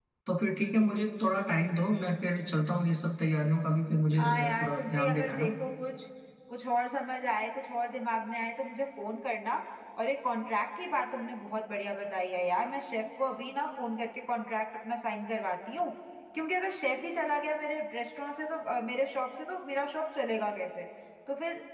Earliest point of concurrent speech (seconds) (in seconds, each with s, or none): 4.2 s